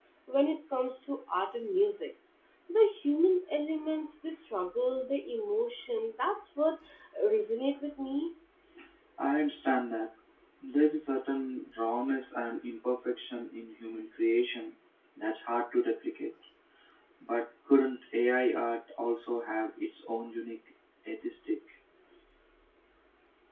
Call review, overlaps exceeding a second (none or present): none